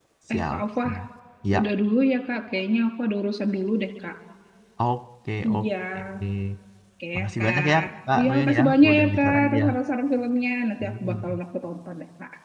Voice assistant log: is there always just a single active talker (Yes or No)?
No